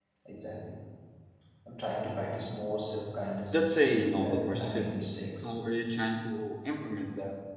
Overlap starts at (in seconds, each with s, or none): 3.5 s